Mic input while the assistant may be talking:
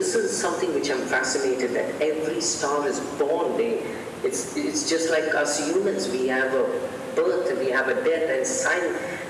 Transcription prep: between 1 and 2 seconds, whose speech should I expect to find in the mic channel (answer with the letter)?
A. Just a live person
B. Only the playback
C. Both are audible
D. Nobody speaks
B